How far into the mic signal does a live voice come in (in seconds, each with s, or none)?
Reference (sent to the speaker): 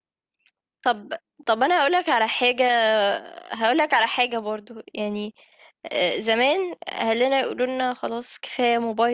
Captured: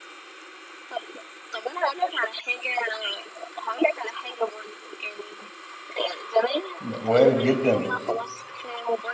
6.8 s